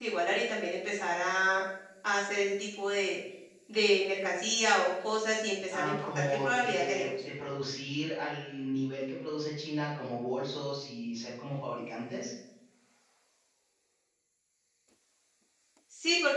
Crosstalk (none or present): present